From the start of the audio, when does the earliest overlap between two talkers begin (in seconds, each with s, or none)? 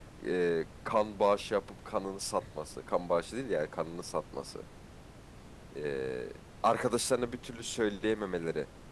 none